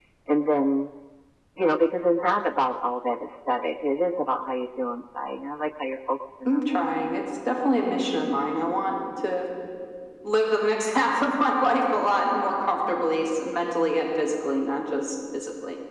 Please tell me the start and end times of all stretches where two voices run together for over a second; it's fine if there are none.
none

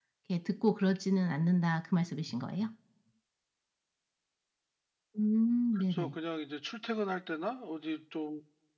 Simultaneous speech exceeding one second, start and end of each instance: none

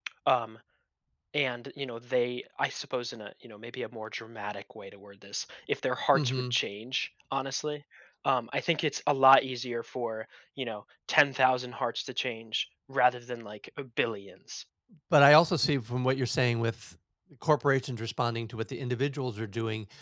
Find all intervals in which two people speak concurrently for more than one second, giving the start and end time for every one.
none

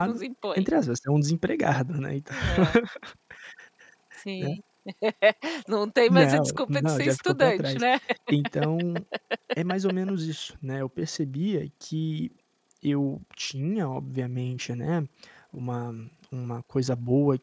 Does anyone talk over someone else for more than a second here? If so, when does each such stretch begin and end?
6.1-7.8

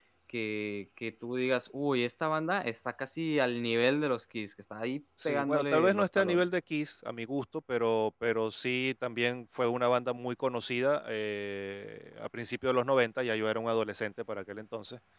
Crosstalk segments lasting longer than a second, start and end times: 5.2-6.5

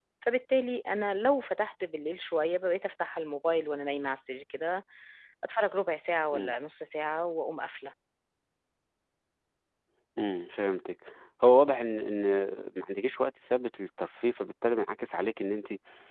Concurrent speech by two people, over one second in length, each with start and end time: none

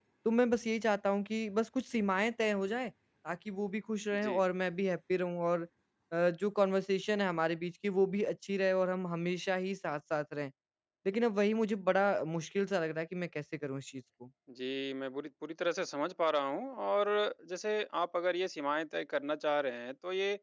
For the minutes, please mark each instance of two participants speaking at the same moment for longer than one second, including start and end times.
none

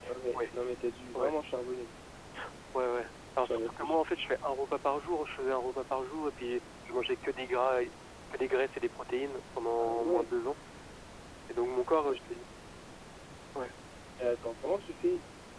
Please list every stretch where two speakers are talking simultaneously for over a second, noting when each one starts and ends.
none

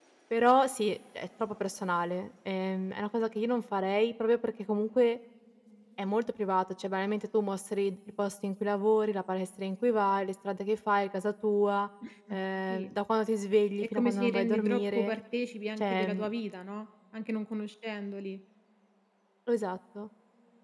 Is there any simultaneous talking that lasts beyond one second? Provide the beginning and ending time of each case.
13.8-15.1

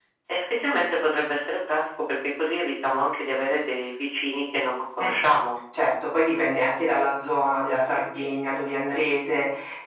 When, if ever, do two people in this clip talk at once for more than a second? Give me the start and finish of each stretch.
none

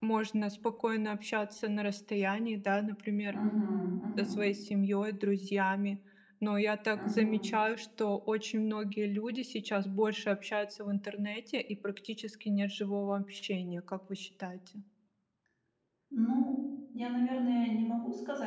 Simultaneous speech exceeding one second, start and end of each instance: none

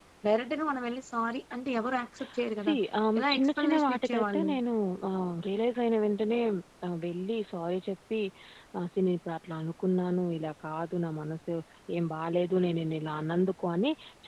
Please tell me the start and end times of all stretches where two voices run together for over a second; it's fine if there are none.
3.2-4.5

